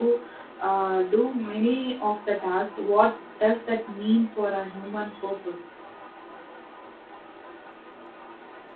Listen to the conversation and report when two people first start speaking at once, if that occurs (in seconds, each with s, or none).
none